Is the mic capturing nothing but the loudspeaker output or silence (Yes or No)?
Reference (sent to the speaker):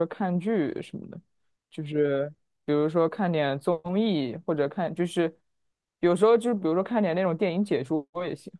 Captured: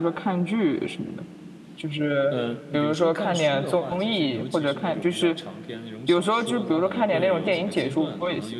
No